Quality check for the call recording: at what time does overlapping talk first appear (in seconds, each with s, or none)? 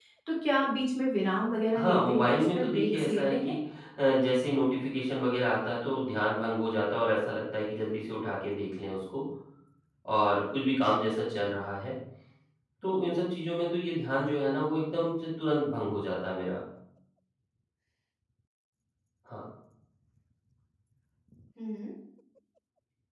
1.7 s